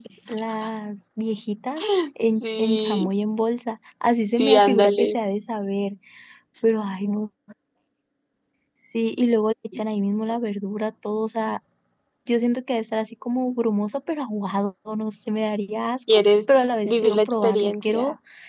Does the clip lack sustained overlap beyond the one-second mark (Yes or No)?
No